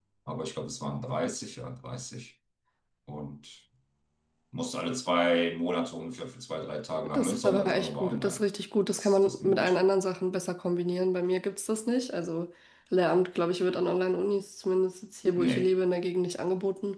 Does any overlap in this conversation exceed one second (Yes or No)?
Yes